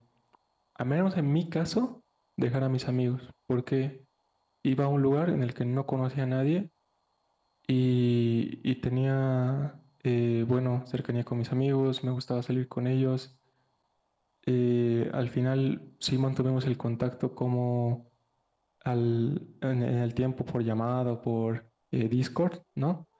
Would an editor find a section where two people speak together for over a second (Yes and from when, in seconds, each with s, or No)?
No